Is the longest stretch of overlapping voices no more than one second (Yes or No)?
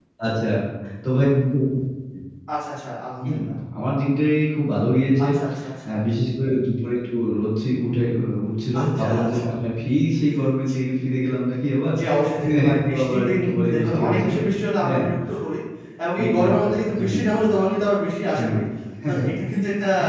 No